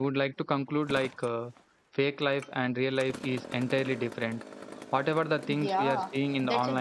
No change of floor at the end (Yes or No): No